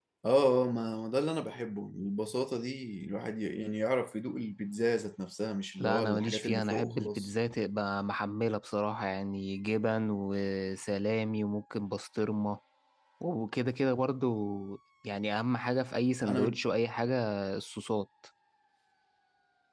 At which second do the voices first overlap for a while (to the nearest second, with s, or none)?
6 s